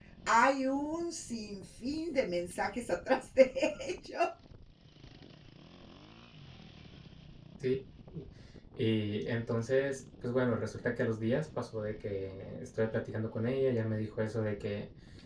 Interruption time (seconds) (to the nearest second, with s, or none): none